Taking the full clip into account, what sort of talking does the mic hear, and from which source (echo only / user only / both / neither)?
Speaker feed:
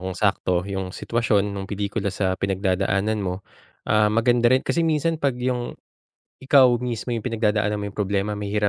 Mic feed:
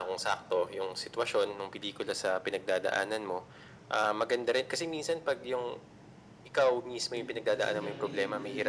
both